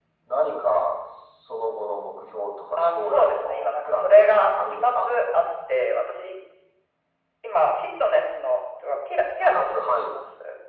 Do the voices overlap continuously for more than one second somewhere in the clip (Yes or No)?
Yes